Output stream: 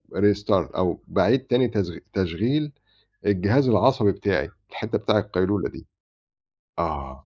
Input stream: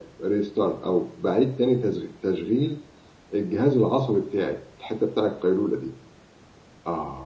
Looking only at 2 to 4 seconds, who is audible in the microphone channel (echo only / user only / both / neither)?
echo only